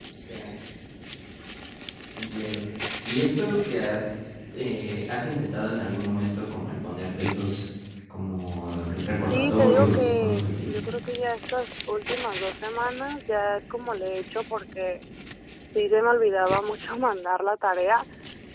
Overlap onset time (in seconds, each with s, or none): 9.3 s